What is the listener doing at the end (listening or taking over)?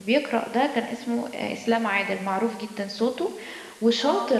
listening